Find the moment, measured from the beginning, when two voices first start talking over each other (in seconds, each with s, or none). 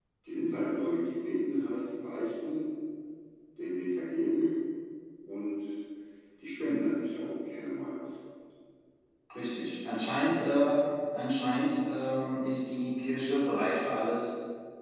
none